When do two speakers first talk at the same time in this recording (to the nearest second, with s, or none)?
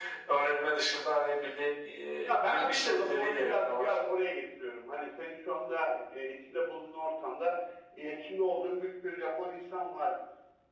2 s